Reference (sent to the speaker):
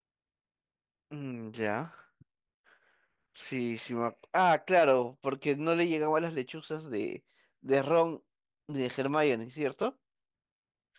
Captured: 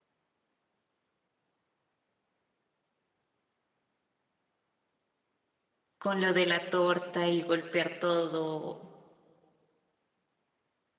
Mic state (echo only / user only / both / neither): user only